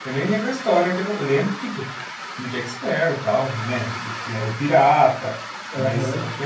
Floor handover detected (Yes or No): No